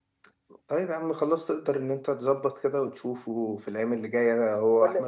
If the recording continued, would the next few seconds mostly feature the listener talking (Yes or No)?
No